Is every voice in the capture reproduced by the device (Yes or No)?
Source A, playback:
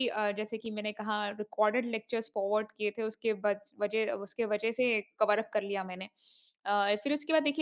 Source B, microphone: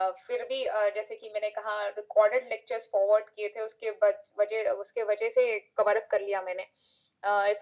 Yes